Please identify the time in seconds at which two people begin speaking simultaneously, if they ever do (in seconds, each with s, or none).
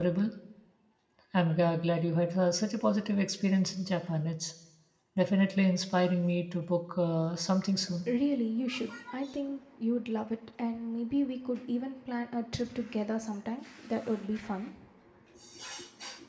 none